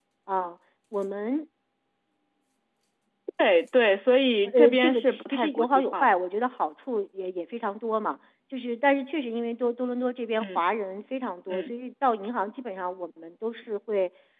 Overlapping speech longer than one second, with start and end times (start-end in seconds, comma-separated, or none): 4.5-6.0